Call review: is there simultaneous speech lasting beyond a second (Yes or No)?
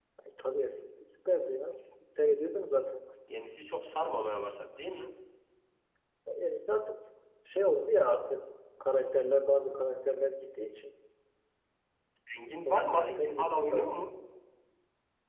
Yes